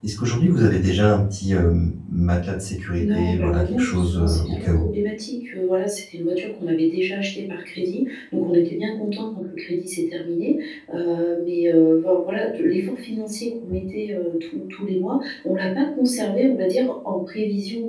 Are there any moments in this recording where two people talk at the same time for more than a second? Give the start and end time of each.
3.0-4.9

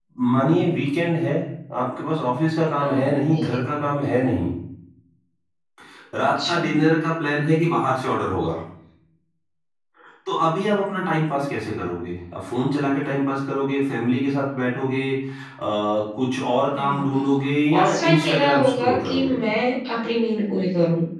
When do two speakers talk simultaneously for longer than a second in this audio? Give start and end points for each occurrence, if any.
17.7-19.4

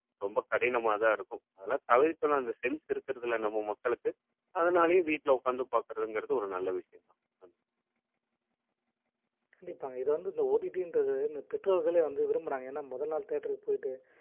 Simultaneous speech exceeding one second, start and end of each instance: none

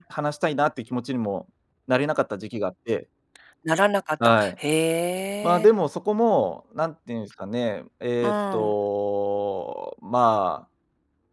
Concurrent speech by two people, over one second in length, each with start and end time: none

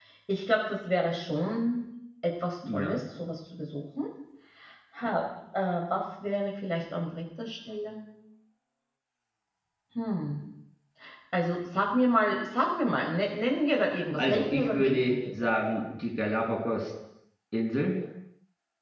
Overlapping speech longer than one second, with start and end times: 14.2-15.5

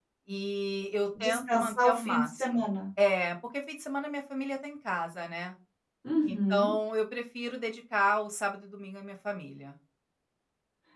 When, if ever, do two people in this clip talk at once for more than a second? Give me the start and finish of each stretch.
1.2-2.6

